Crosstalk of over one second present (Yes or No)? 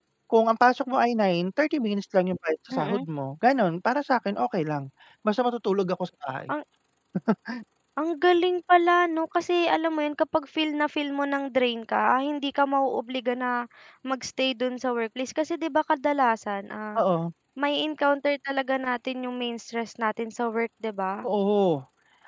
No